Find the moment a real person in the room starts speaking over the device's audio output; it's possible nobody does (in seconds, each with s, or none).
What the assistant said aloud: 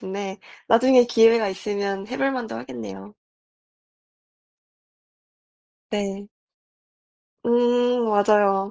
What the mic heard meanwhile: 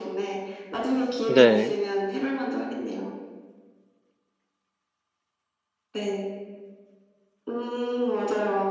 1.3 s